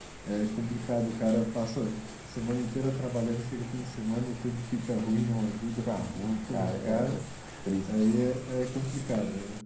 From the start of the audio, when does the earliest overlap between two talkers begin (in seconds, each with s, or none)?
5.8 s